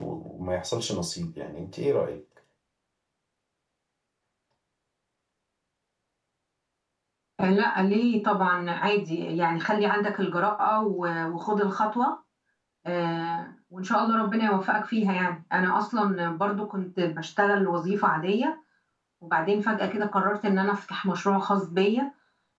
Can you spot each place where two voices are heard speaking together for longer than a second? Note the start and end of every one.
none

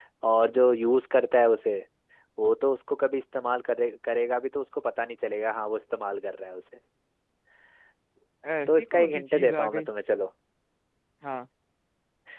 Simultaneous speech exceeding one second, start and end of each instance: 8.7-9.9

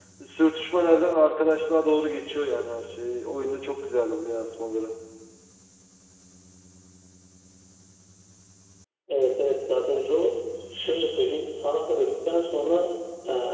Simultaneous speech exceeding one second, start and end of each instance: none

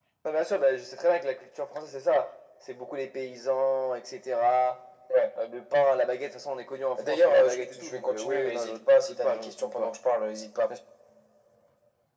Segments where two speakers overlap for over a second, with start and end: 7.0-9.9

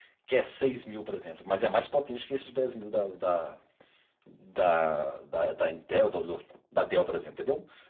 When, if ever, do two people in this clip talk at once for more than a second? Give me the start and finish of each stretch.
none

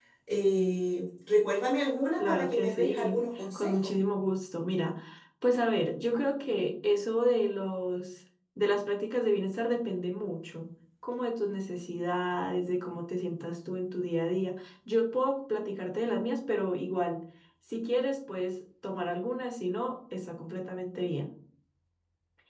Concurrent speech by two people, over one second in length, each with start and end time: 2.2-3.8

